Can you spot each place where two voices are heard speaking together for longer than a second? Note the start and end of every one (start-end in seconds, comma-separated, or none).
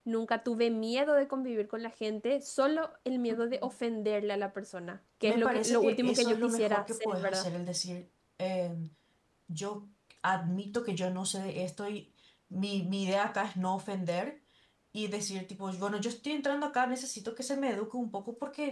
5.2-7.5